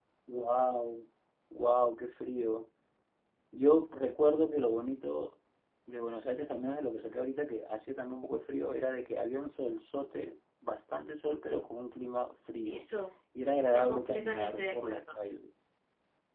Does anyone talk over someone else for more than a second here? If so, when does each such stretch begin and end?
13.5-15.2

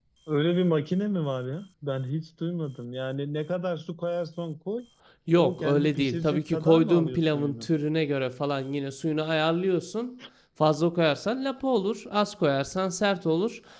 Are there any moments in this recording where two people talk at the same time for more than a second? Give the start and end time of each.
5.4-7.7

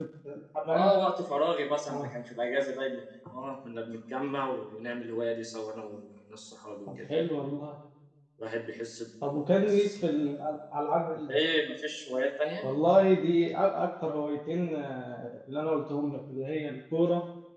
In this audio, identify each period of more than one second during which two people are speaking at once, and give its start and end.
none

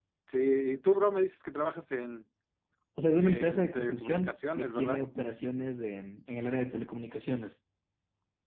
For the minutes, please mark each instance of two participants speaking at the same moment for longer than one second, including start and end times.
3.2-5.0

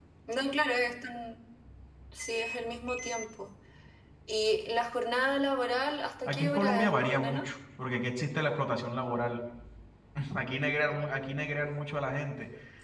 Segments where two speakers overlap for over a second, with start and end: 6.3-7.5

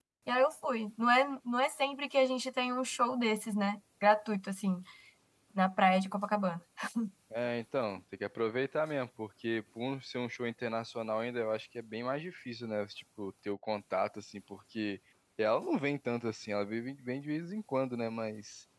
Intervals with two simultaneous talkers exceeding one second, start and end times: none

